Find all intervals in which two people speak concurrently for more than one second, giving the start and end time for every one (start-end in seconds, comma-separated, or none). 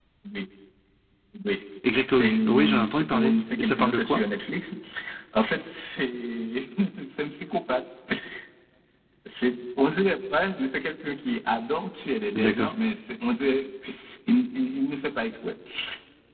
2.0-4.2